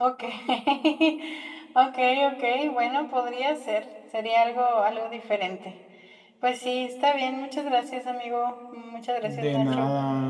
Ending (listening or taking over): taking over